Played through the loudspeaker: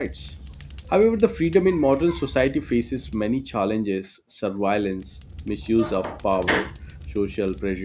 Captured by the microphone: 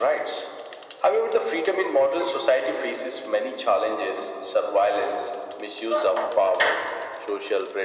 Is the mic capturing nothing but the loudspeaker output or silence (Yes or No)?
Yes